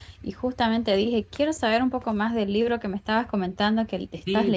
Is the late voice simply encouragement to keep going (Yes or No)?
No